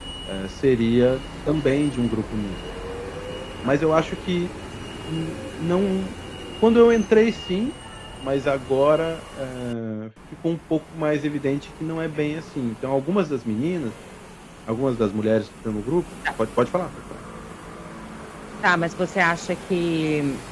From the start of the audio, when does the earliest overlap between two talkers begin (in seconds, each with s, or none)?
none